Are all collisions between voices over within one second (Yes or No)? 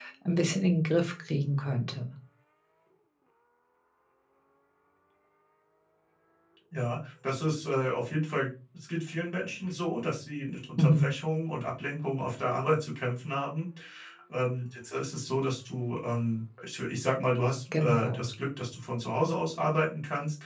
Yes